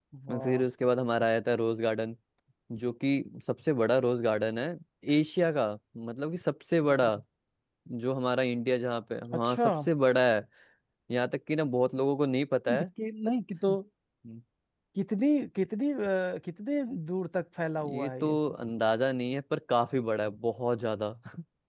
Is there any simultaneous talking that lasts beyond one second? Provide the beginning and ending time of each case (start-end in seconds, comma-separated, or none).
none